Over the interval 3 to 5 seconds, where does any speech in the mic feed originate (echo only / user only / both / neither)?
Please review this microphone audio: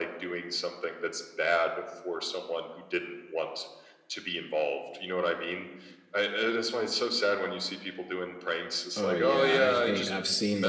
echo only